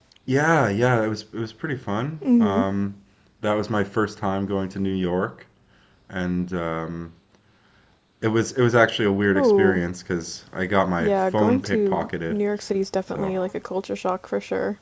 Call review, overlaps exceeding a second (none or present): present